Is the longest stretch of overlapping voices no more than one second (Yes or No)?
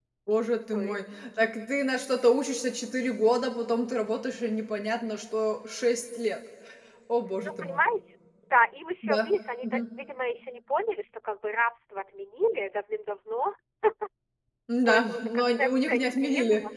No